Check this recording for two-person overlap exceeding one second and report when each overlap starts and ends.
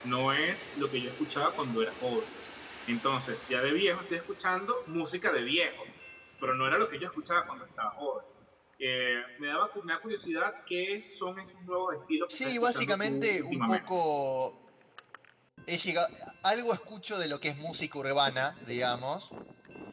12.3-13.8

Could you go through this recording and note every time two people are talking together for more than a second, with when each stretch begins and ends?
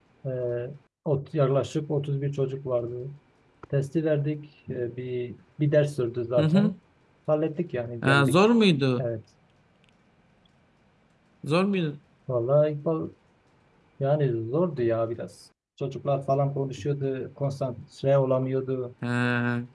none

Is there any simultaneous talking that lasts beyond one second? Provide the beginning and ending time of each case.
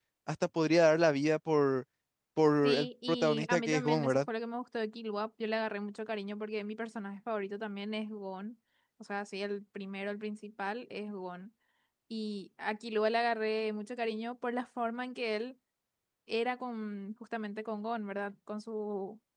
2.6-4.2

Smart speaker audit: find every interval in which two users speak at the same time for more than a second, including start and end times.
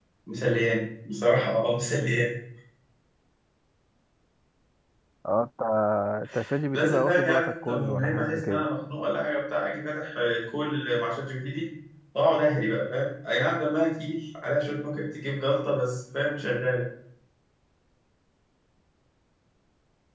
6.7-8.7

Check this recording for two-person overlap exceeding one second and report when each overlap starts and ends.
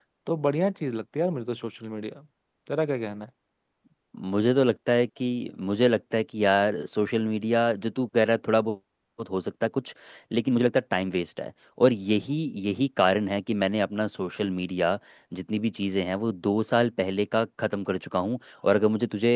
none

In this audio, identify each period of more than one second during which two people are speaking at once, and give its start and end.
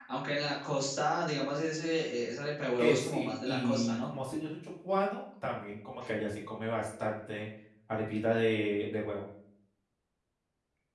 2.8-4.1

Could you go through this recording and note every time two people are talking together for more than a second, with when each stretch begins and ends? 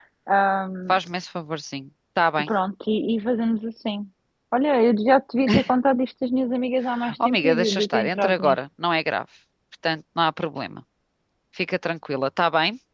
7.2-8.6

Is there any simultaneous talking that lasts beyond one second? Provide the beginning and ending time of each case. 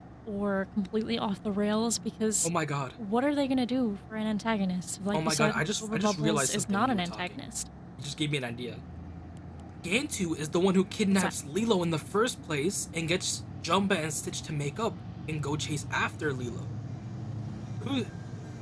5.1-7.3

